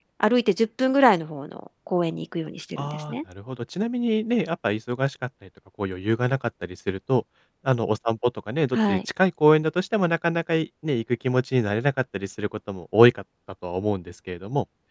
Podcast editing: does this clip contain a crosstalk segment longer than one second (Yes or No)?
No